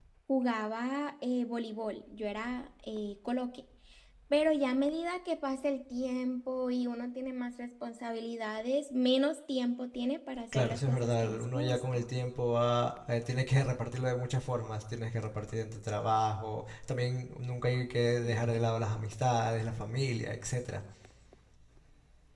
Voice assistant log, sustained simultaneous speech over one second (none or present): present